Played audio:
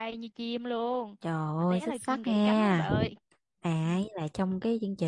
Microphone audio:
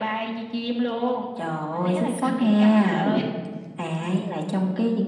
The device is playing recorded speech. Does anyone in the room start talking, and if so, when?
none

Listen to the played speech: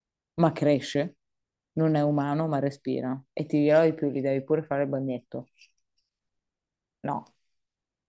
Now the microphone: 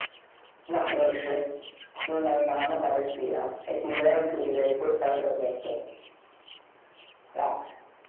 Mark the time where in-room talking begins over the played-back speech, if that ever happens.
none

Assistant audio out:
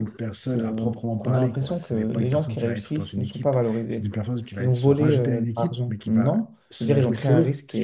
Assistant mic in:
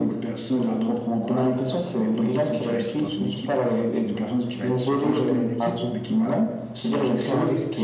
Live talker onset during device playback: none

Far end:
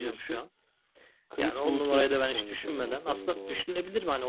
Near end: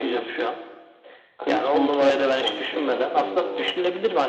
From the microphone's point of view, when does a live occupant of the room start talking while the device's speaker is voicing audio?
none

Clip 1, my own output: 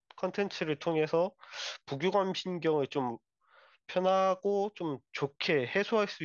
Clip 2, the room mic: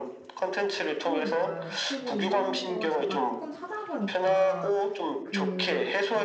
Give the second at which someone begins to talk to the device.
1.0 s

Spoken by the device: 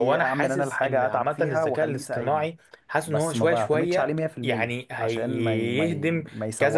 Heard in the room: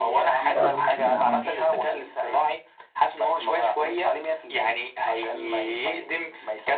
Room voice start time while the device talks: 0.5 s

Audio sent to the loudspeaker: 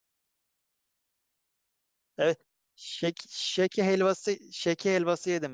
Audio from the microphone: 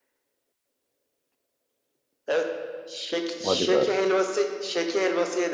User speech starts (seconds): 3.4 s

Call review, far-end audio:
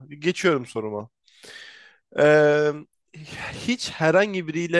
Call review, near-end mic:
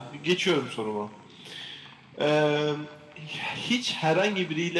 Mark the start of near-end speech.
none

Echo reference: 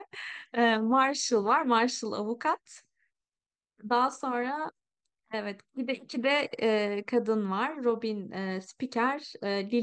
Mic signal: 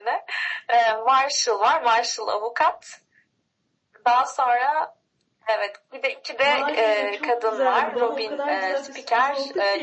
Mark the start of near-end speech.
6.4 s

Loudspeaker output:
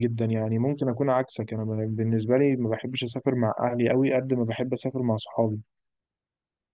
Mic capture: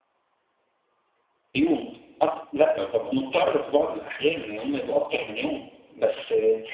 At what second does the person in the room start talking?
1.5 s

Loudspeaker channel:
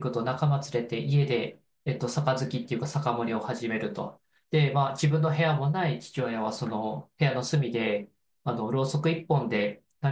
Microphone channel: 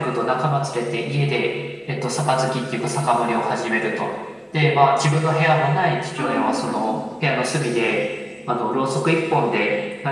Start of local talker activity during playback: 6.1 s

